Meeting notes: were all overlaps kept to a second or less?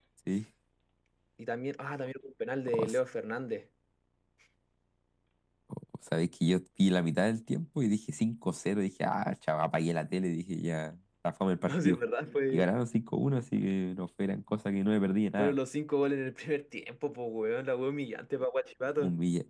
Yes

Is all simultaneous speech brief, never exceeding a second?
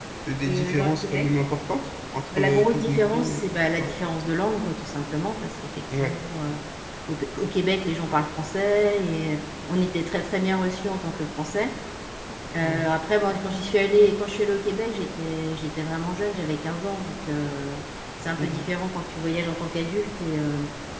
No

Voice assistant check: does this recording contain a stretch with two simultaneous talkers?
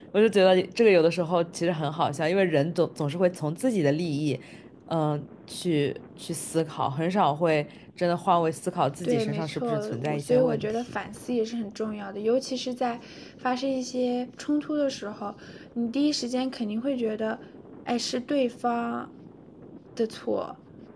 Yes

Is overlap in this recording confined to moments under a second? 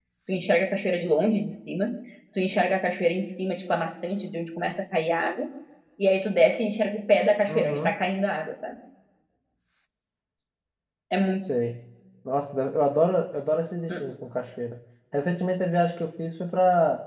Yes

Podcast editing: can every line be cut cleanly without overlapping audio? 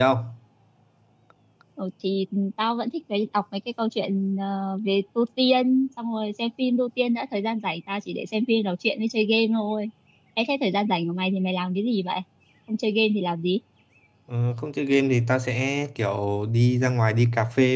Yes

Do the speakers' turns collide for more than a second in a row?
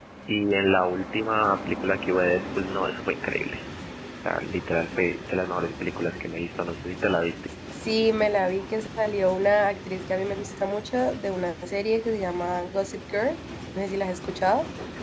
No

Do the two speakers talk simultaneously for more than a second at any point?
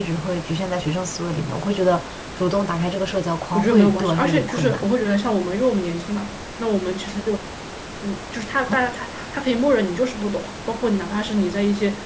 Yes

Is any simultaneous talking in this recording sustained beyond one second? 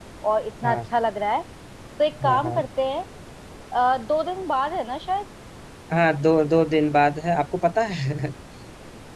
No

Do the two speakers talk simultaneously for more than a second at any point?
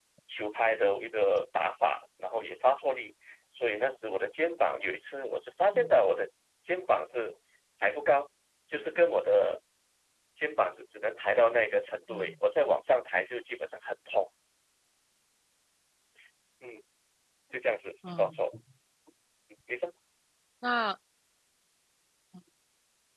No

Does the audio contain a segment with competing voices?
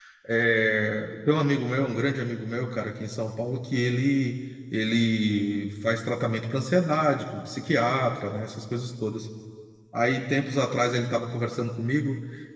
No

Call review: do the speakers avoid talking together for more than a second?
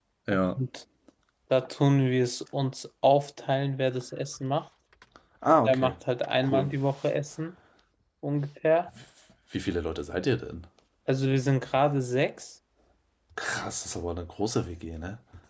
Yes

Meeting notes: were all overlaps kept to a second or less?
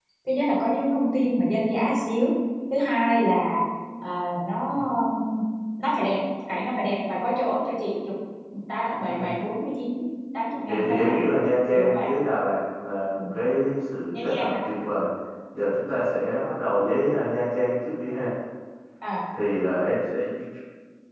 Yes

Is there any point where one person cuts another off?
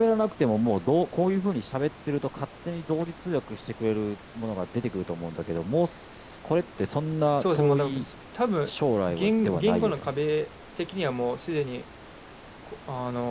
Yes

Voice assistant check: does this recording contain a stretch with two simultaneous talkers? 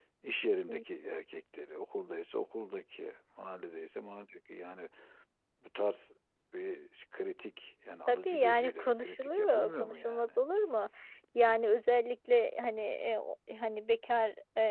Yes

